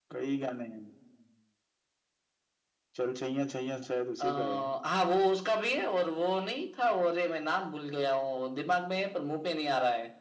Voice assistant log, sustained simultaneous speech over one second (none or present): none